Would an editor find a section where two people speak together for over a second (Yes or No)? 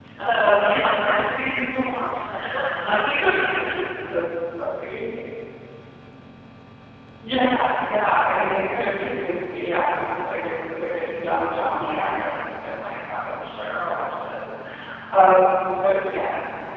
No